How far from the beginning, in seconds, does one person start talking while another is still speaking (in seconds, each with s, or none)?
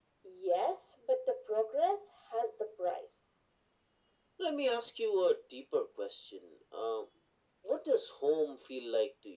none